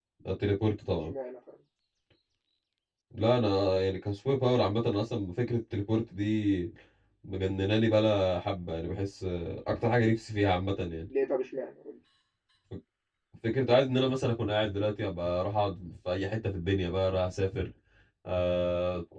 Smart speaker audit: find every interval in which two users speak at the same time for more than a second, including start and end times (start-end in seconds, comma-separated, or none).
none